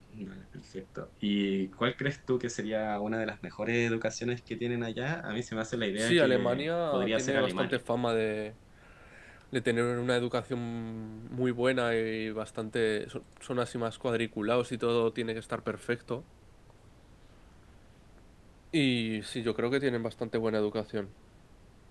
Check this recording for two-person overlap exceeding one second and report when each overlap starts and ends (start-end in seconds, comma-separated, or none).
6.0-7.8